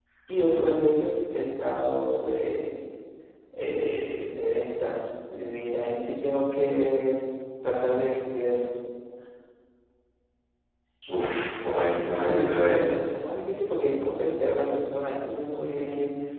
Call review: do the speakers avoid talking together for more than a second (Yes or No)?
No